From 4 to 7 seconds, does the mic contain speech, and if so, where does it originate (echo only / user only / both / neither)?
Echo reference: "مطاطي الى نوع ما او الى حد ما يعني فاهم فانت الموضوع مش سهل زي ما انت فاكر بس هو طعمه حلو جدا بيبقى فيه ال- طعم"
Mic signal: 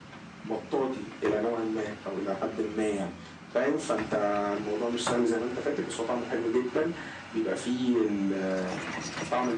echo only